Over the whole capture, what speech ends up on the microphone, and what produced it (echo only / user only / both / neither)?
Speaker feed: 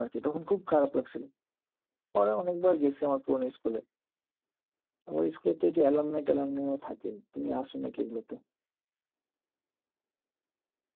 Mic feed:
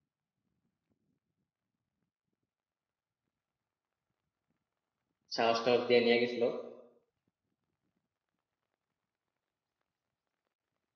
user only